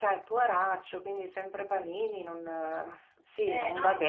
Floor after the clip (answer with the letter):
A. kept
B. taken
B